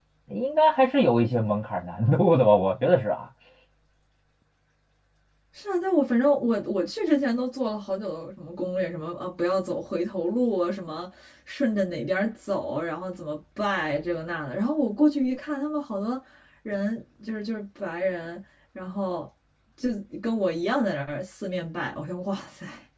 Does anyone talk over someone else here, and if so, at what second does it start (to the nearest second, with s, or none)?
none